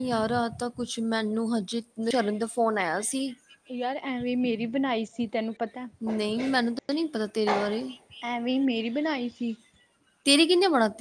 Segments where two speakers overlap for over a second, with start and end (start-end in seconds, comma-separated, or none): none